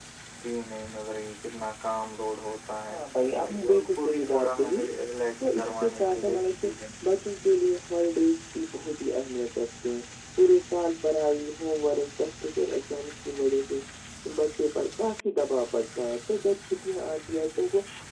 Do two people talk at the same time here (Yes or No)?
Yes